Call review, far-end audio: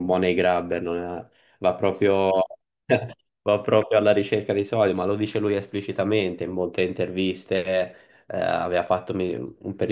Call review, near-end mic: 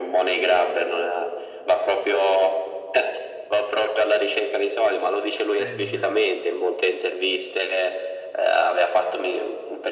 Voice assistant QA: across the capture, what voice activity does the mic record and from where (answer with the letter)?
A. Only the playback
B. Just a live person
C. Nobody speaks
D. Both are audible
D